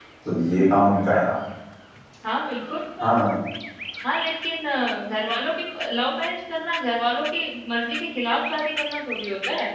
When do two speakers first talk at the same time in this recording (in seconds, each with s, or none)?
none